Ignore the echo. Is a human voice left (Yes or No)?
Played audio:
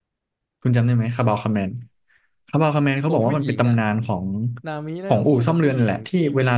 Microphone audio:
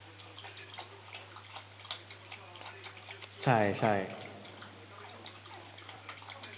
Yes